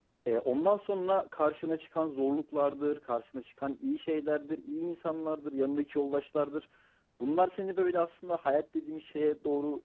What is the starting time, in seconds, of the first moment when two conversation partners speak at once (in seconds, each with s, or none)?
none